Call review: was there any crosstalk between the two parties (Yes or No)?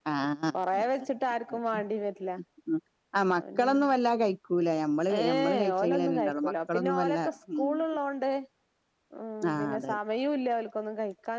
Yes